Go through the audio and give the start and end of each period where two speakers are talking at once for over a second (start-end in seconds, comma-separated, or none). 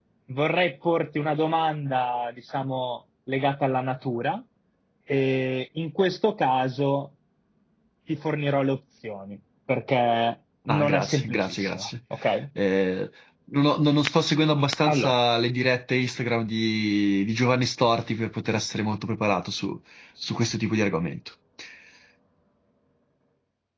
10.7-11.9